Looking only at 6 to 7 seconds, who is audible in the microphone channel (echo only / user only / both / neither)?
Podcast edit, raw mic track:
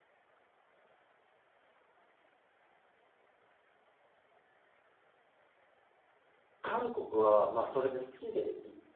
user only